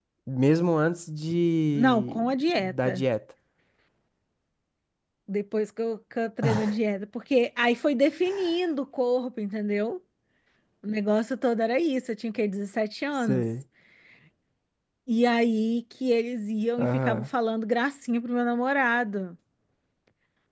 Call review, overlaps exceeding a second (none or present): present